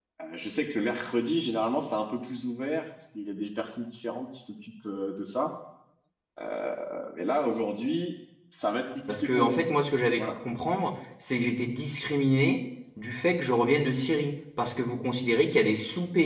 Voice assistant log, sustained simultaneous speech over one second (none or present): none